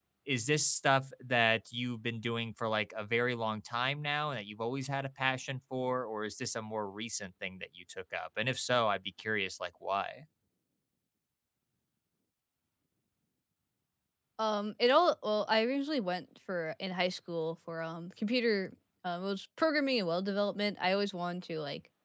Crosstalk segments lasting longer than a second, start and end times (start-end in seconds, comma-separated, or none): none